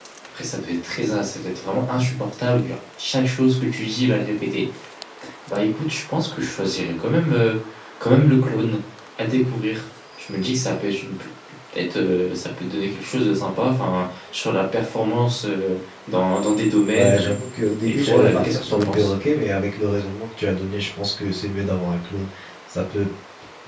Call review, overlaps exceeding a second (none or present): present